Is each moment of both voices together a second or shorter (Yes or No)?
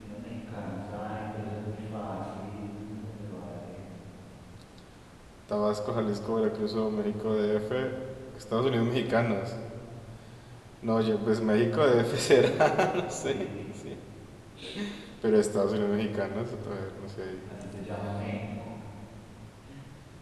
Yes